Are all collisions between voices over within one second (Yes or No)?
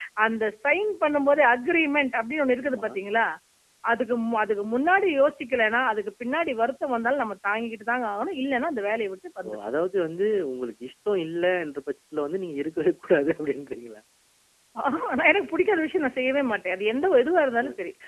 Yes